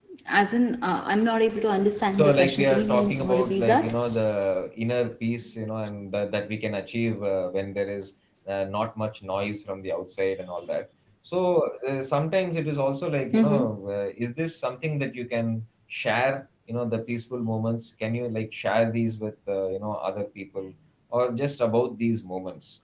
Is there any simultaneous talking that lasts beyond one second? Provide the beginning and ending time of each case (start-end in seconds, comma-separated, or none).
2.1-3.9